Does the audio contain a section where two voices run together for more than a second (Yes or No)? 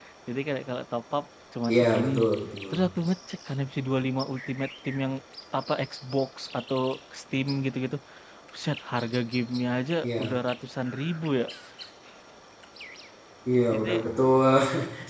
No